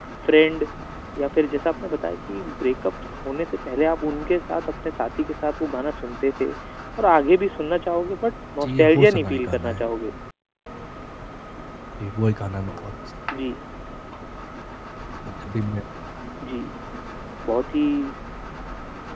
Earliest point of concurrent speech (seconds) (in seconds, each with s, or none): 8.6 s